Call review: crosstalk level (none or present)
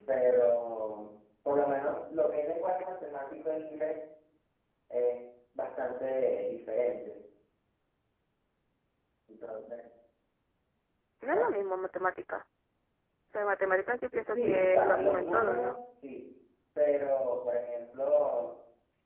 present